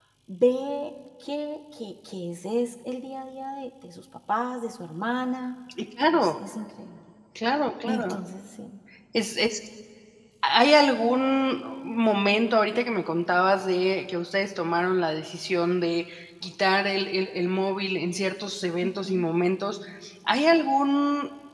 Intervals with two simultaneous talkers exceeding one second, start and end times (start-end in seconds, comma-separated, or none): none